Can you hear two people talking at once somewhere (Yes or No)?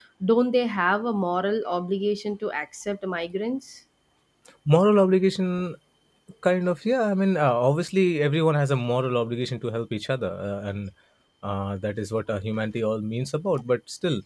No